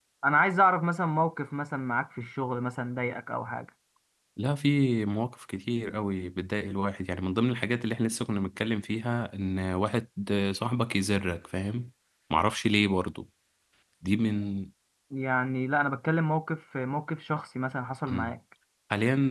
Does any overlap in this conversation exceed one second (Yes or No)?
No